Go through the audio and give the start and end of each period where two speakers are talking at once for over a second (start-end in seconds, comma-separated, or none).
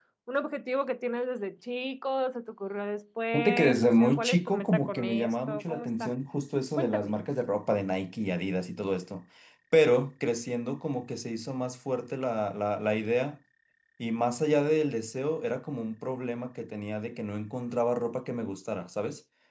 3.3-6.1